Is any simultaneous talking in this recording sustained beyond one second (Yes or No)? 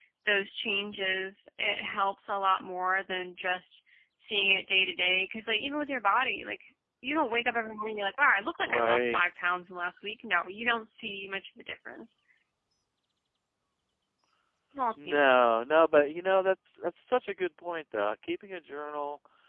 No